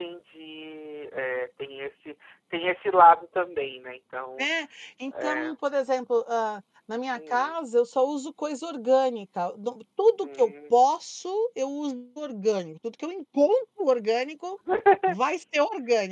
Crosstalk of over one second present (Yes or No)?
No